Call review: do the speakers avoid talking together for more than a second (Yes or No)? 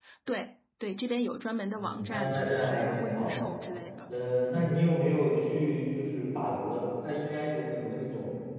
No